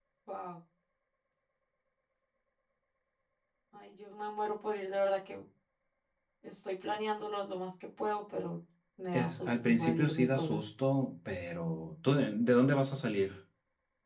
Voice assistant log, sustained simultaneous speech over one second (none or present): present